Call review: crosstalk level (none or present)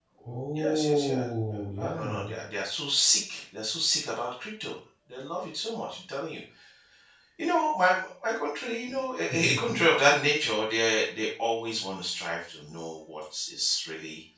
present